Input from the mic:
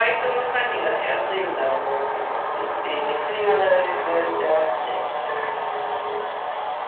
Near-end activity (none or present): none